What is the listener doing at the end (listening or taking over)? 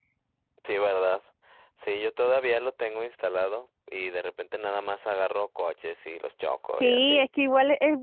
taking over